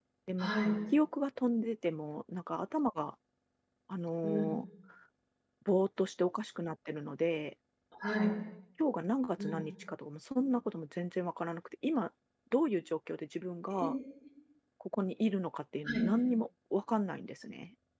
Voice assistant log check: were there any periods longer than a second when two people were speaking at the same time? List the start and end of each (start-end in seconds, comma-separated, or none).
none